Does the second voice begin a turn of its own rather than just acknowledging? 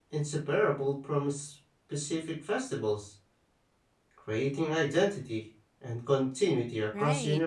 Yes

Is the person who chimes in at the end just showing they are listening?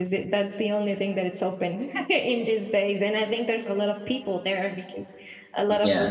Yes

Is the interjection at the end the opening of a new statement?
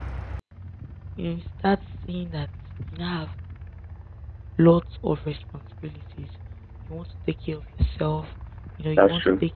No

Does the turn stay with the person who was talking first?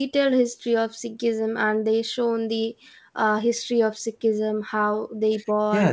No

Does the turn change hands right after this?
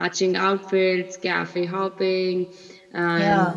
No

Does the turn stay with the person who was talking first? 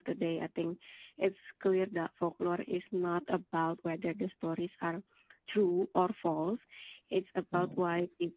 Yes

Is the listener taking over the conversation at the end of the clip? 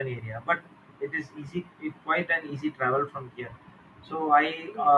No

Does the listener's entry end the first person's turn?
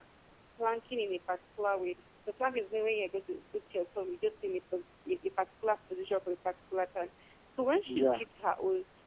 No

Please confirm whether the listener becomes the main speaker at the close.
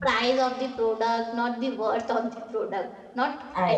No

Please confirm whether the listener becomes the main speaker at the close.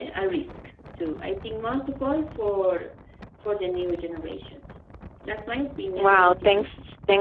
Yes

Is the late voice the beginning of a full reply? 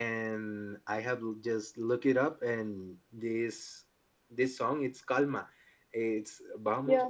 No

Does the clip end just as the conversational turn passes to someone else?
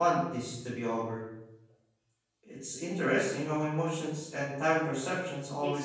Yes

